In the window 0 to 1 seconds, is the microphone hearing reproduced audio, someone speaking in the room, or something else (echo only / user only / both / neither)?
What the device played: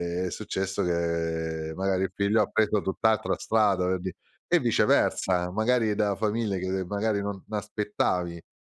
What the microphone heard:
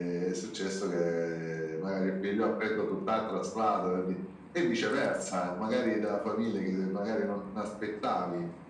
echo only